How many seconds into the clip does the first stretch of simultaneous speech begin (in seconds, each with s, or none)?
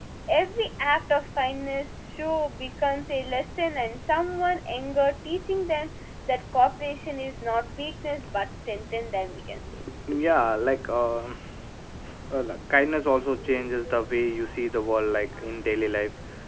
none